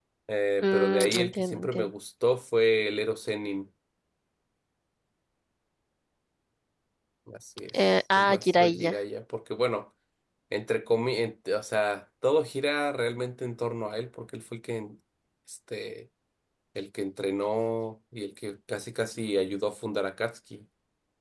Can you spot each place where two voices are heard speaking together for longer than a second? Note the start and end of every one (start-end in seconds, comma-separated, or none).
0.6-1.9, 7.7-9.0